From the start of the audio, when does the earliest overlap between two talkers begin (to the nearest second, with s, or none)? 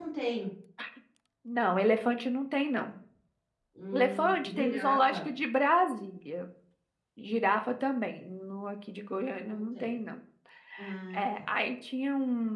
4 s